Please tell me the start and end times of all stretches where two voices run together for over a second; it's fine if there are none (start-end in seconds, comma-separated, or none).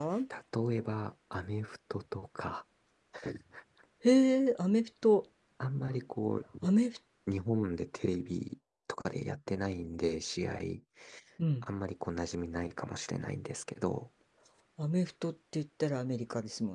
none